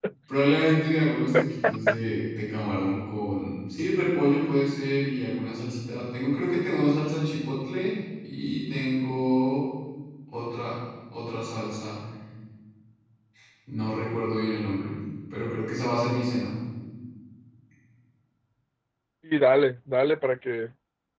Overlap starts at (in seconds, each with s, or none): none